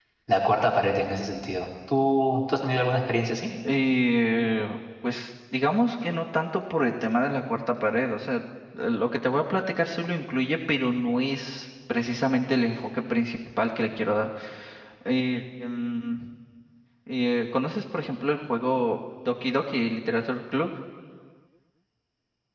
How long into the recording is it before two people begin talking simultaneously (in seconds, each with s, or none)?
none